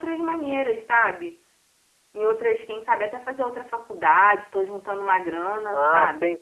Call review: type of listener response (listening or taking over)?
taking over